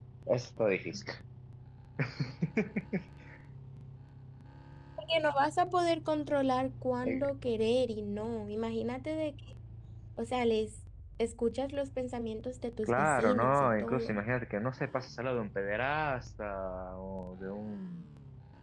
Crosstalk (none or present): present